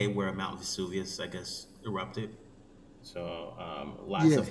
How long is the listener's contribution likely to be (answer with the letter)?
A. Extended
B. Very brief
B